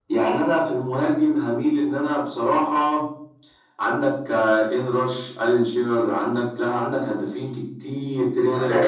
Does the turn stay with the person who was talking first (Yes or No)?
No